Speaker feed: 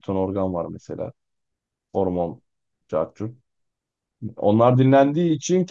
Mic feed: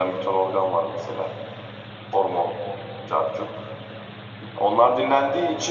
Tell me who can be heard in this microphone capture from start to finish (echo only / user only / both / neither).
echo only